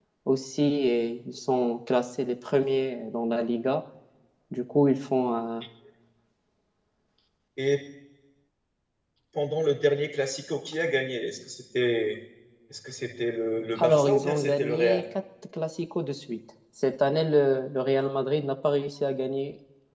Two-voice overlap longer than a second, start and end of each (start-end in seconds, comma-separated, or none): 13.8-15.0